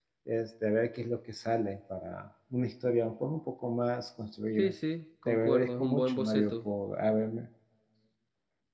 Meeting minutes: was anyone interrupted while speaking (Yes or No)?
Yes